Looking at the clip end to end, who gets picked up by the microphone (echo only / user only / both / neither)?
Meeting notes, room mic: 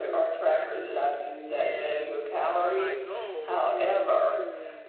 both